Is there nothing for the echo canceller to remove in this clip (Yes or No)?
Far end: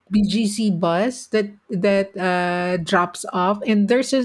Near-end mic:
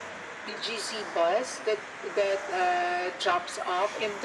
No